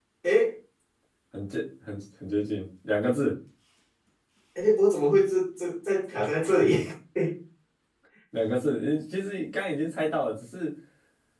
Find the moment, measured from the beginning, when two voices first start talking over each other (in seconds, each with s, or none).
none